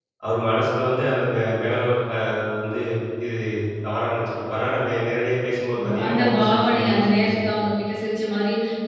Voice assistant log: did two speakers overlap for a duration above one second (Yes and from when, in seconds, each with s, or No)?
Yes, from 5.7 s